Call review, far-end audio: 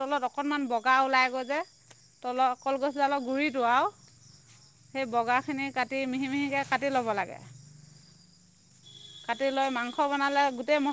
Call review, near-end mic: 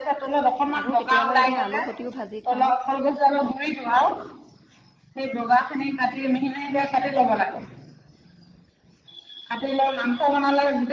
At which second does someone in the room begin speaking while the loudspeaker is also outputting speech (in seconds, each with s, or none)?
0.8 s